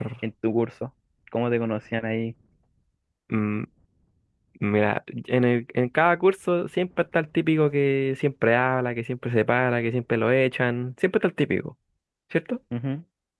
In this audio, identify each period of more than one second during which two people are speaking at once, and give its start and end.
none

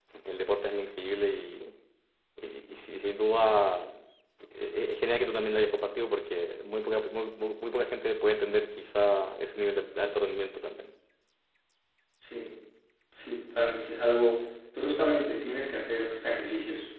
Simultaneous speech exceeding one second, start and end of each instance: none

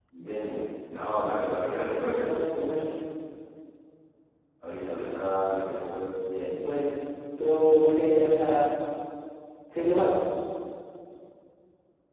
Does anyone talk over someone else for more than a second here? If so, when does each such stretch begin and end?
none

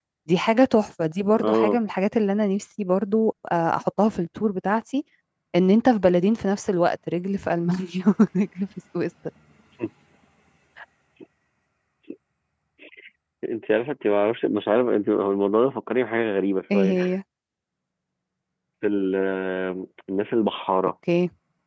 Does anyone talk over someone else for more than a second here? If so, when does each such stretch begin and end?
none

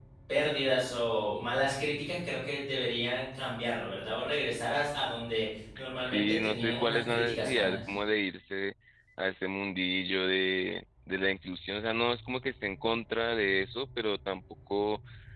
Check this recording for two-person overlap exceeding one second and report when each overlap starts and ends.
6.0-7.8

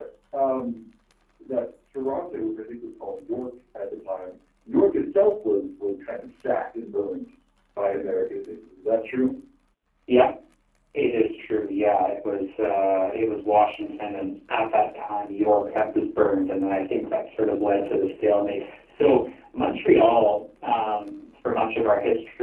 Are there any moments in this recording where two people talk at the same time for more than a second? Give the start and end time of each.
none

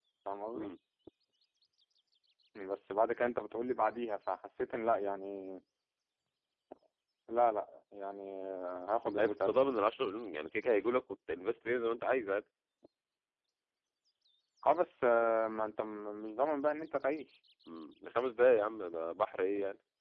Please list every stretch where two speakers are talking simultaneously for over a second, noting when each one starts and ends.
none

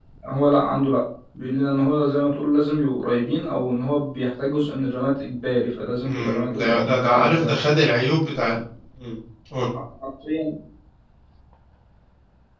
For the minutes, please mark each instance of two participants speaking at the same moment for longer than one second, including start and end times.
6.0-7.6

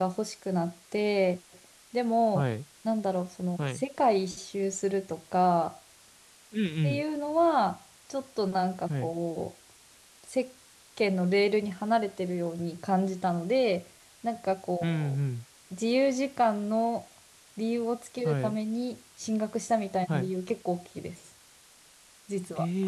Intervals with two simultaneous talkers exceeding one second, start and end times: none

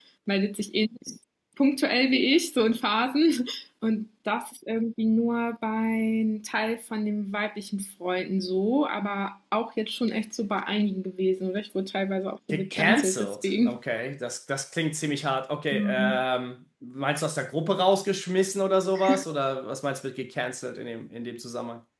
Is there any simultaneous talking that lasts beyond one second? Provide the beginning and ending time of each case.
12.5-13.8

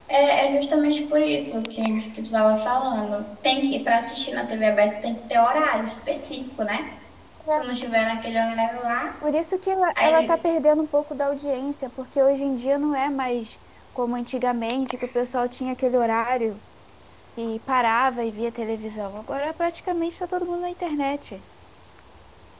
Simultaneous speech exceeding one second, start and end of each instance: none

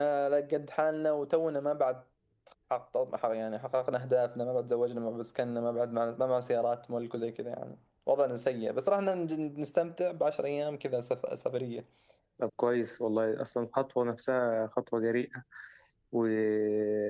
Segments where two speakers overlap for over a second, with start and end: none

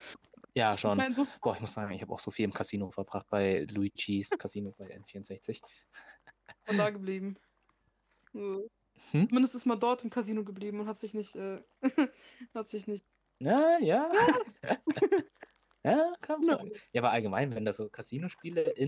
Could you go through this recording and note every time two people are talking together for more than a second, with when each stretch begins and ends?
none

